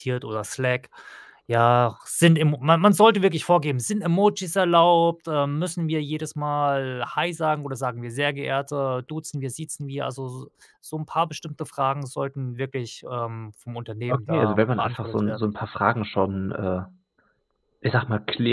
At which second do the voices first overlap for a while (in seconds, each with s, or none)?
14.1 s